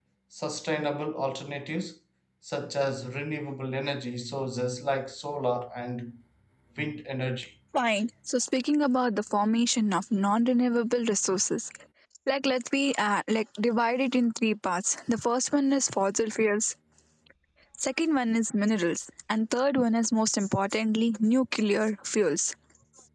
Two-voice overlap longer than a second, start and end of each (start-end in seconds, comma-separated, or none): none